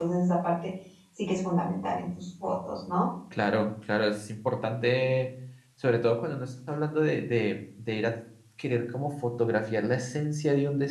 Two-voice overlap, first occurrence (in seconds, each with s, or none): none